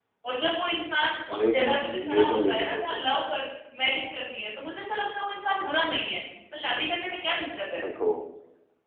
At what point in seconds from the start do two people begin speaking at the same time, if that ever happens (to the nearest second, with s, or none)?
1 s